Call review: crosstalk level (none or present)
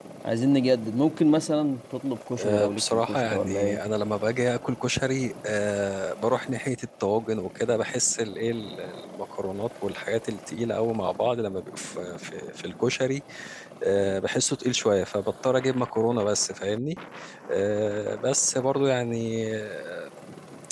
present